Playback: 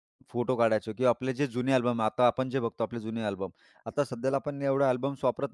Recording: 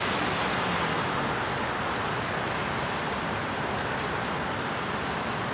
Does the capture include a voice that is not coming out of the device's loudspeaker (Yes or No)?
No